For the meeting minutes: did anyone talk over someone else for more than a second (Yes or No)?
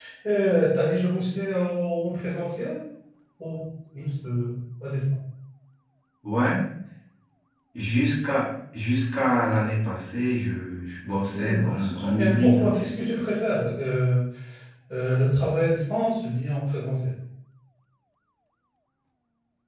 Yes